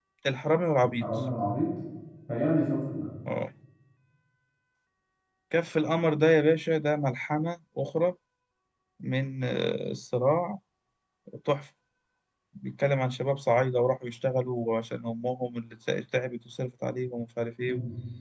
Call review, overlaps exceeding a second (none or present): none